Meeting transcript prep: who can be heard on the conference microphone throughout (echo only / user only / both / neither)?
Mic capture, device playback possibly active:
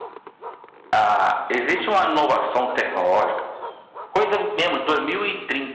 echo only